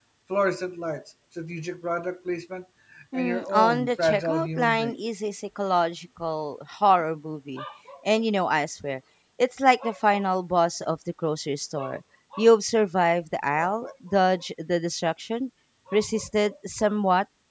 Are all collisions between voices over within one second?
No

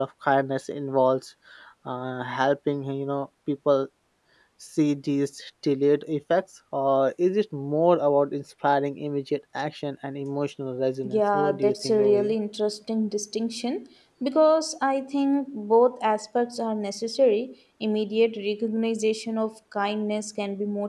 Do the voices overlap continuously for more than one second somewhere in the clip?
Yes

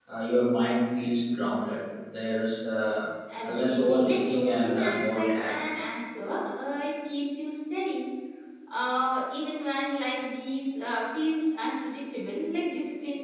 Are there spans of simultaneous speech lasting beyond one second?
Yes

